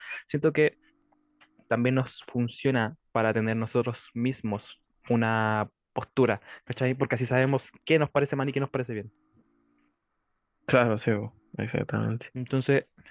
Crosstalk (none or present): none